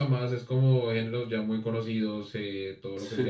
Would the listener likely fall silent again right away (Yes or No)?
No